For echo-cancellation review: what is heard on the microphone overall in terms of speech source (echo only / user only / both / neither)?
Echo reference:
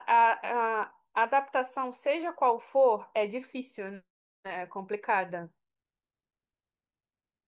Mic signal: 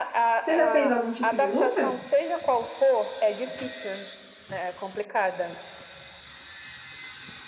both